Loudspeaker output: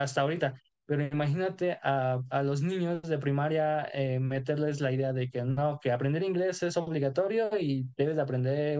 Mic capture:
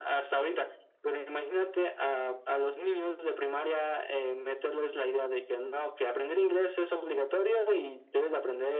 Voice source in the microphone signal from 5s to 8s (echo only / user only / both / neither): echo only